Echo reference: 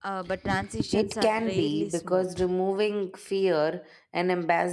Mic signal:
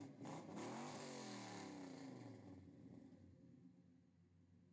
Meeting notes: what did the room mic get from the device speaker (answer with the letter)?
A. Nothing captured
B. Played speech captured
A